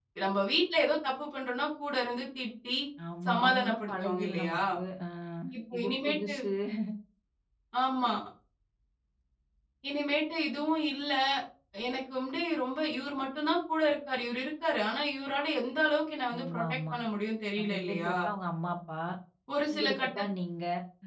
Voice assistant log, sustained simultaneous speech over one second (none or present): present